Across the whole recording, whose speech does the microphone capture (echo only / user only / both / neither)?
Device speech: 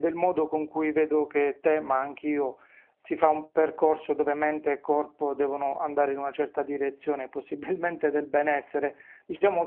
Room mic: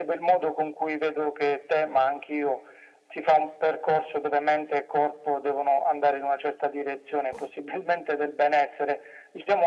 echo only